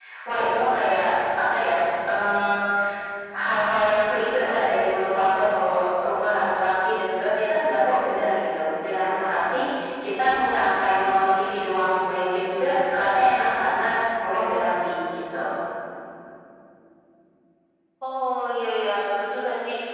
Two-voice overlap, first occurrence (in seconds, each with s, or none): none